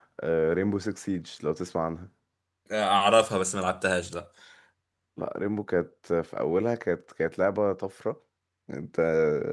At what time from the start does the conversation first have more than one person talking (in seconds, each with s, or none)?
none